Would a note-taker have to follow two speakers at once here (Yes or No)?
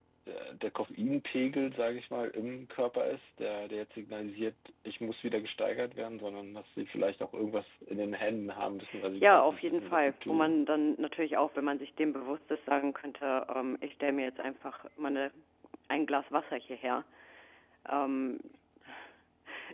Yes